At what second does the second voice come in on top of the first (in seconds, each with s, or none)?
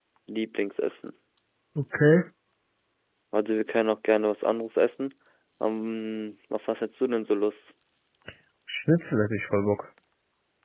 none